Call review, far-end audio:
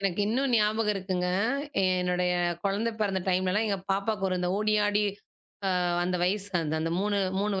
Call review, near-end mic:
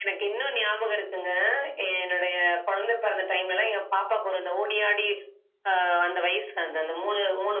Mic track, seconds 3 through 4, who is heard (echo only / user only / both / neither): echo only